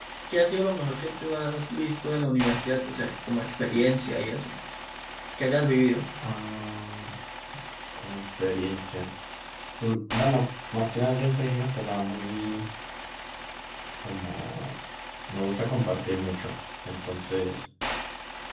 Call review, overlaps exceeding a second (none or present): none